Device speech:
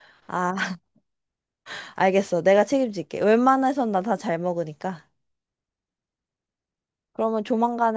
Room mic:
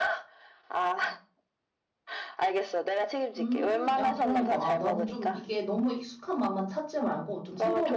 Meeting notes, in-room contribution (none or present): present